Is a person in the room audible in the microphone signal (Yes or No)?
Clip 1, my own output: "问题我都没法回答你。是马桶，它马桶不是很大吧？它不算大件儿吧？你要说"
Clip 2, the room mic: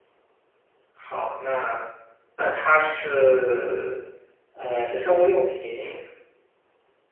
Yes